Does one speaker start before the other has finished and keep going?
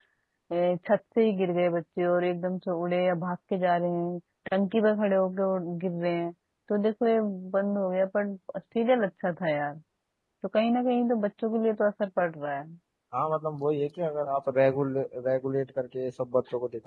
No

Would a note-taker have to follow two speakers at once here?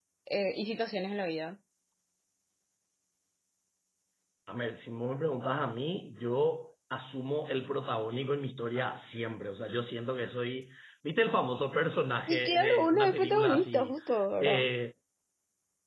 Yes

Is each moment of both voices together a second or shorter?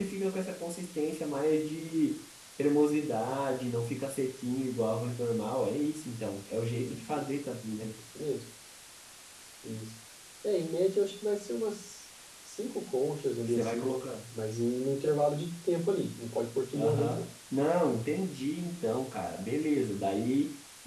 Yes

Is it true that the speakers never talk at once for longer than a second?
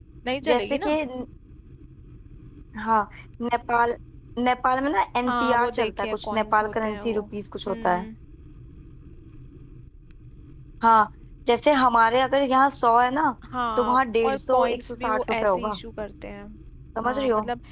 No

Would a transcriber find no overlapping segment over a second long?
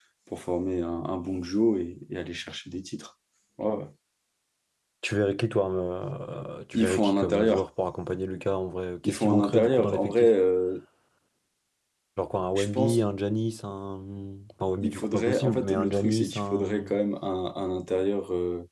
No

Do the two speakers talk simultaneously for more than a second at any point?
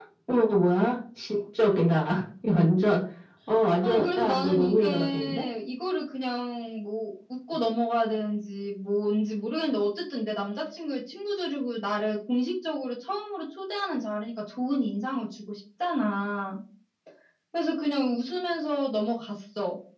Yes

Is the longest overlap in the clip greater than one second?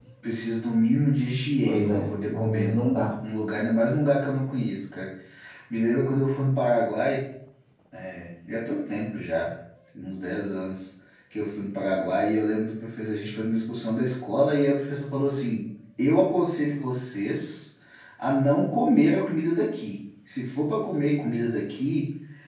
Yes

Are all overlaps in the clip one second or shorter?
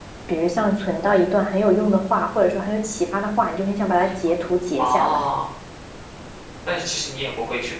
Yes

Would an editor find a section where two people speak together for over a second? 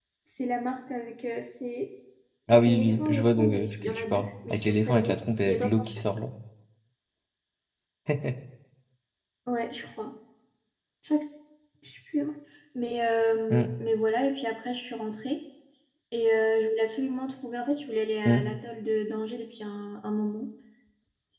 Yes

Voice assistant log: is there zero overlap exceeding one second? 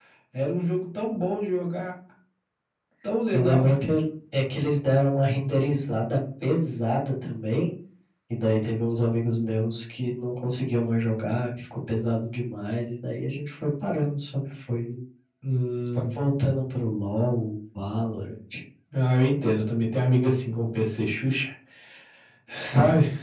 Yes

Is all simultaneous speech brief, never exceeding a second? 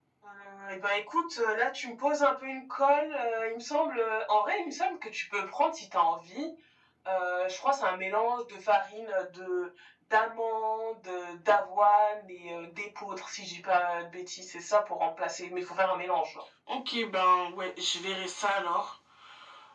Yes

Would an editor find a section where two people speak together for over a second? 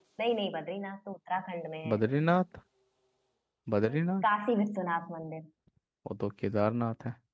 No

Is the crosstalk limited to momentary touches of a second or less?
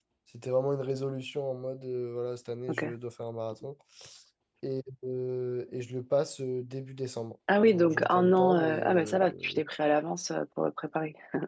No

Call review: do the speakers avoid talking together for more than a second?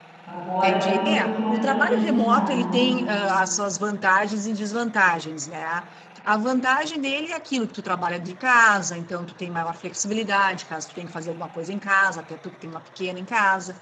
No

